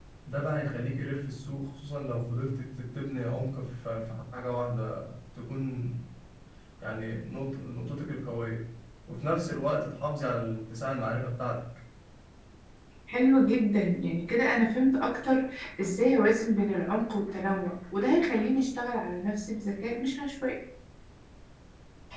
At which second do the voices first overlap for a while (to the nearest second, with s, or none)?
none